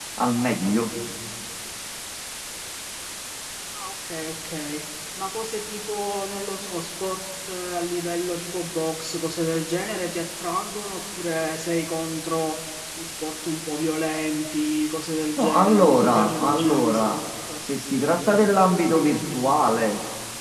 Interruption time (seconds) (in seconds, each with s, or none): 15.4 s